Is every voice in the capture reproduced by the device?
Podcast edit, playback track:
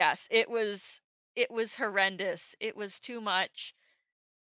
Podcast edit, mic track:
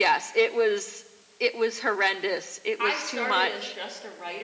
No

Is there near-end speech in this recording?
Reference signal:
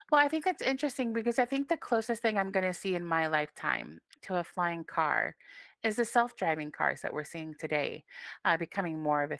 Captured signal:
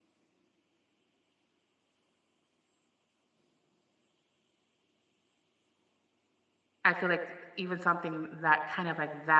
Yes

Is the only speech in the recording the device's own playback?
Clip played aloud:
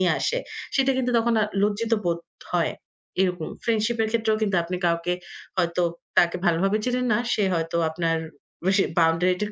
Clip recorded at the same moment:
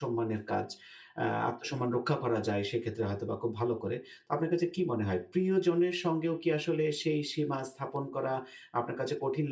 No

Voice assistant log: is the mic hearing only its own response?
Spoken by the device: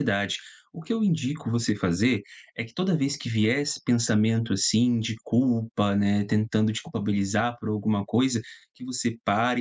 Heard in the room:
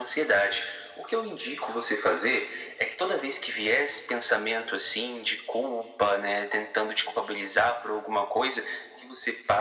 Yes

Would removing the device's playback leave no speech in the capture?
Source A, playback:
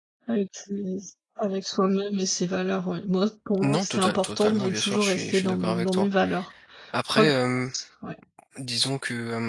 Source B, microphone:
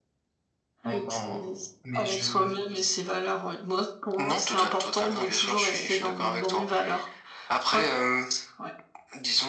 No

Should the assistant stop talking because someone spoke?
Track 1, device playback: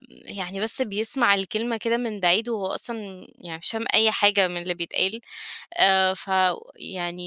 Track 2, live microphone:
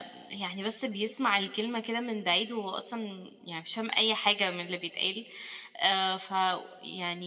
No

